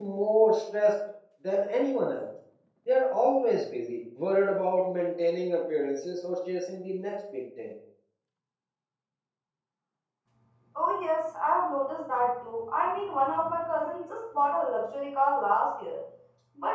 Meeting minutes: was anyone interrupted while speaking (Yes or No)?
No